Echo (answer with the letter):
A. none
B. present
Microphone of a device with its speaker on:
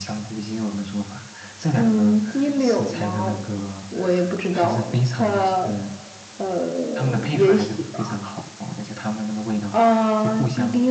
B